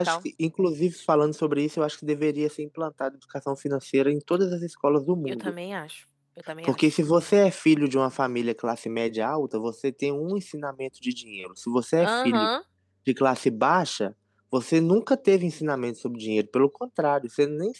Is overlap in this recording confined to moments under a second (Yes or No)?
Yes